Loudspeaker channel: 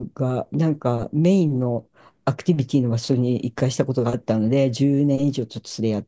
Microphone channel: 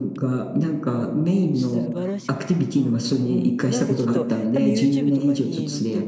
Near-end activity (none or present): present